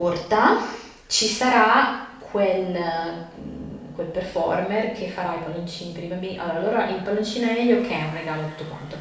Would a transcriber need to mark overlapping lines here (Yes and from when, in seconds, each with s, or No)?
No